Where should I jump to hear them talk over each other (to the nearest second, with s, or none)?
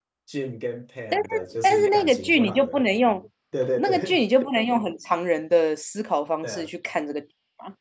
1 s